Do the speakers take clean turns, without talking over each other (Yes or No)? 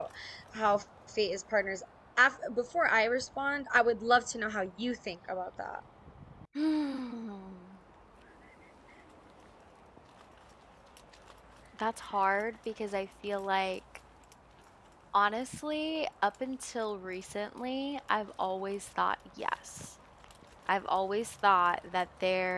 Yes